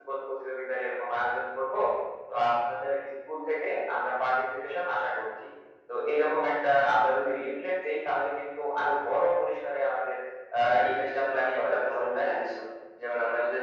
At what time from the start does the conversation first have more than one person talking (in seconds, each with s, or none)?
10.6 s